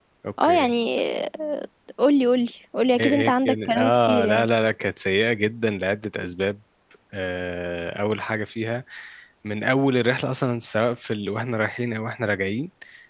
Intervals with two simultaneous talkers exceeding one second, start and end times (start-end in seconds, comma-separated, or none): 3.0-4.5